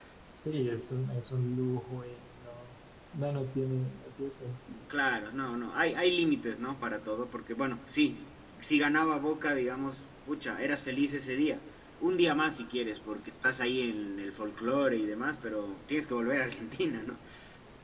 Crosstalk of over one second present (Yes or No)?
No